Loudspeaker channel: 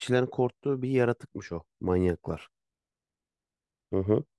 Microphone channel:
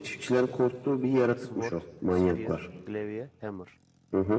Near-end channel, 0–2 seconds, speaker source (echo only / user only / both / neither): both